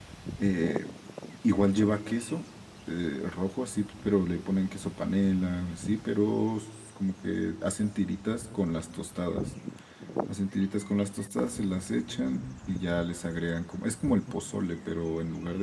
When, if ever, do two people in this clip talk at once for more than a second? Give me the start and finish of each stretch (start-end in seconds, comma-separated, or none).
none